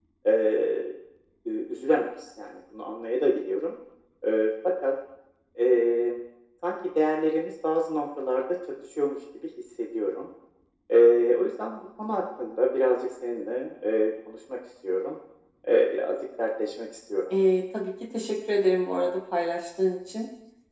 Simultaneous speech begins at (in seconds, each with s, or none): none